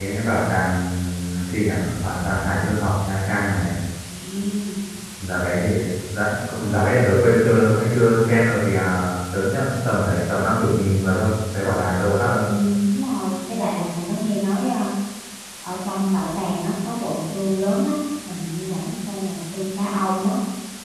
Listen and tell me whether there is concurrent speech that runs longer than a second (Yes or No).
No